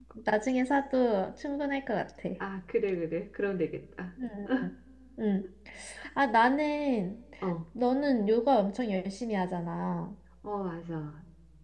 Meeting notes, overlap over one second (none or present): none